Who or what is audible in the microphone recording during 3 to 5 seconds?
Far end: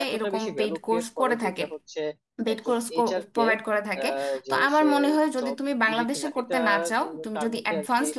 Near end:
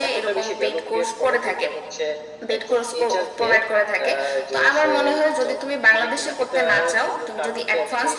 echo only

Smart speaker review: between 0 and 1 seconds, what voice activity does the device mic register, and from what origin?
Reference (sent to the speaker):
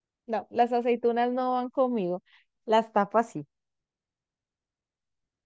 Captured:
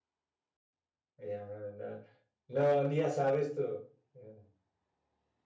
neither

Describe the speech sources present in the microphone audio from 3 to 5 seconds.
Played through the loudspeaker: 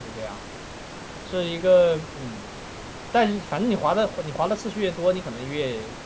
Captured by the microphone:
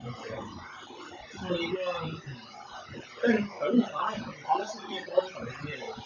echo only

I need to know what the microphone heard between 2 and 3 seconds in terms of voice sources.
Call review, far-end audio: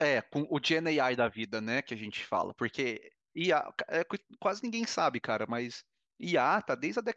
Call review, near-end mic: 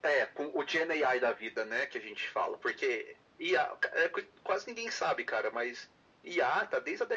echo only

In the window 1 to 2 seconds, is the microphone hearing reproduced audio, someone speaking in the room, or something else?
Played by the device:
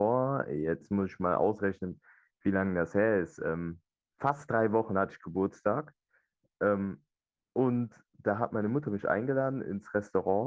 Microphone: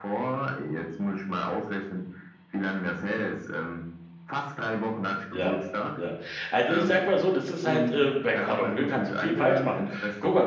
echo only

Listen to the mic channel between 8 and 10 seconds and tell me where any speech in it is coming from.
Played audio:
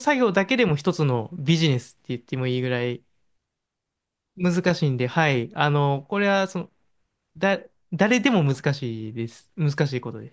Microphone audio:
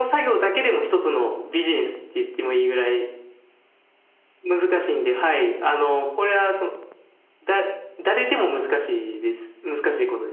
echo only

